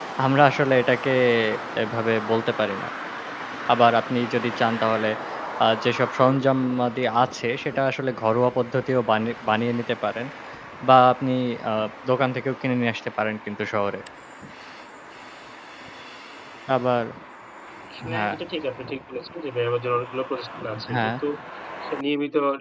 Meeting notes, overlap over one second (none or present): none